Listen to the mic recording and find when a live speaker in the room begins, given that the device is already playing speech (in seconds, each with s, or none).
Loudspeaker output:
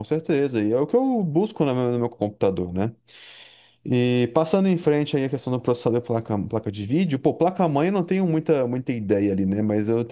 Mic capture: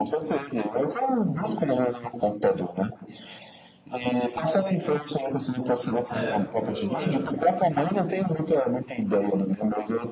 6.1 s